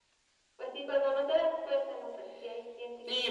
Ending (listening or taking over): taking over